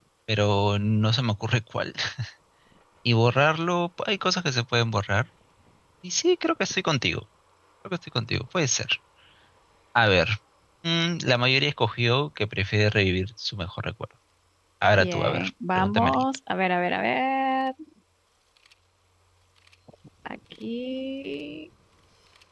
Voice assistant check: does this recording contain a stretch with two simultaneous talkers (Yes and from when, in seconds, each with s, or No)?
Yes, from 14.9 s